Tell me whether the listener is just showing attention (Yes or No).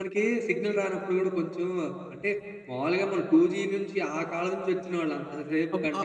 Yes